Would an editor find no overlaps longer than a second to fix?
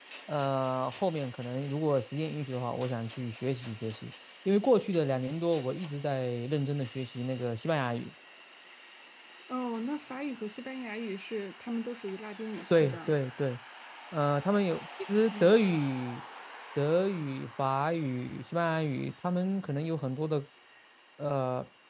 Yes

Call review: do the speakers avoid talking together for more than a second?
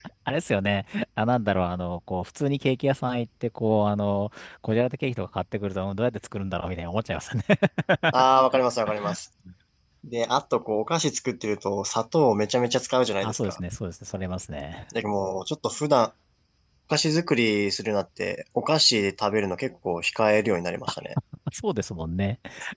Yes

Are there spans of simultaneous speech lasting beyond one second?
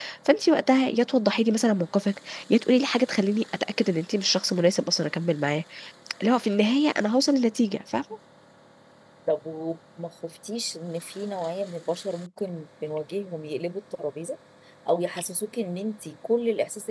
No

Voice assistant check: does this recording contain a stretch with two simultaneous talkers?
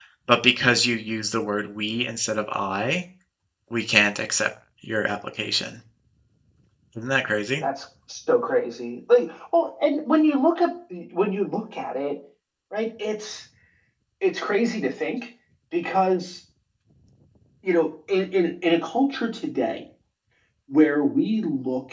No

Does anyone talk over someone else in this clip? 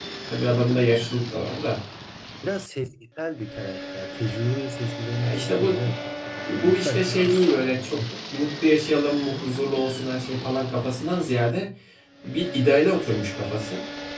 Yes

